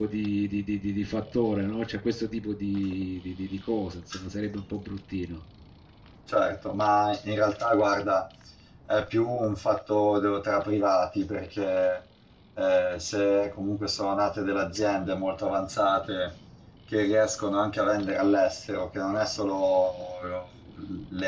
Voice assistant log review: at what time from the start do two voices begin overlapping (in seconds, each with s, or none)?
none